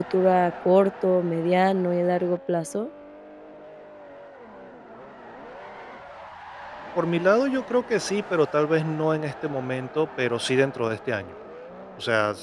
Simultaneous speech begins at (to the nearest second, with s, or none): none